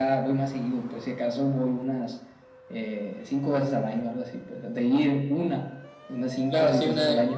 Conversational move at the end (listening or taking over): taking over